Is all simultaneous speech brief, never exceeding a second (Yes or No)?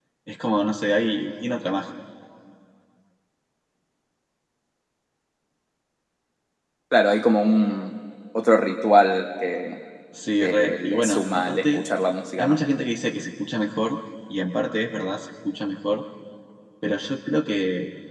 No